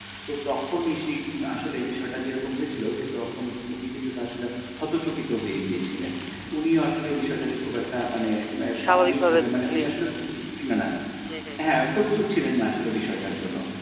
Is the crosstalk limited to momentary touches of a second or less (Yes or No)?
No